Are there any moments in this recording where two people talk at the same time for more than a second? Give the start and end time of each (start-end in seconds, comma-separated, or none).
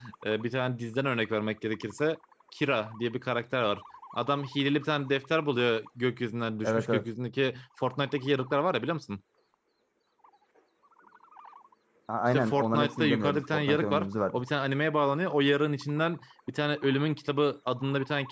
12.3-14.4